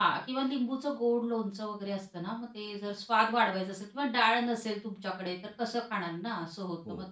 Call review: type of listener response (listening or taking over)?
listening